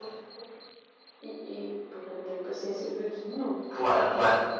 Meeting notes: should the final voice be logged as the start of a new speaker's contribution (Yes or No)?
Yes